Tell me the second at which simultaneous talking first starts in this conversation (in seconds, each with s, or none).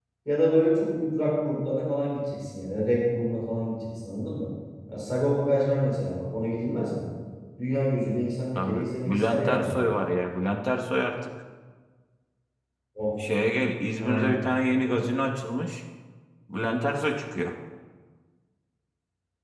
8.6 s